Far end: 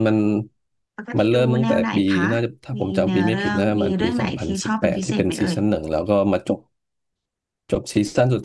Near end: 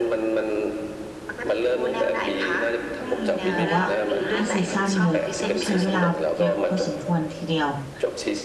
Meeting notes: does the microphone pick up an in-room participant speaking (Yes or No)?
Yes